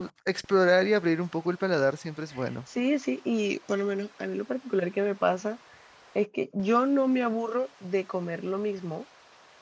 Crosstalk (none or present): none